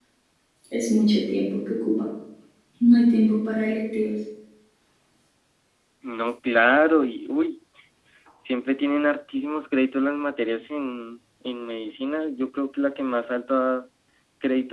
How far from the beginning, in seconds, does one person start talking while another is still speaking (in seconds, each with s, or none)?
none